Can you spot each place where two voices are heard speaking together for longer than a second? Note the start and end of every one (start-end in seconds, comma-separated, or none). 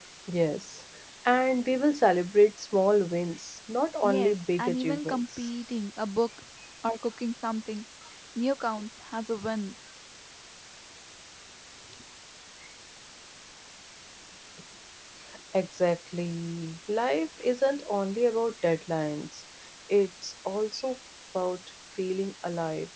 4.0-5.5